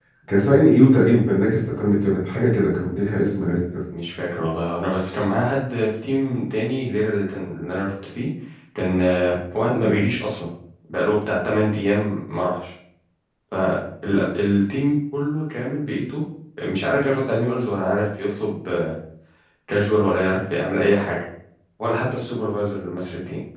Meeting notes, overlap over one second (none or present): none